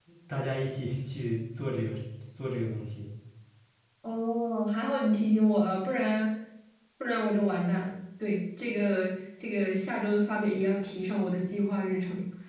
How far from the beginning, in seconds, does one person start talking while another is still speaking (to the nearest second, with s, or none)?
none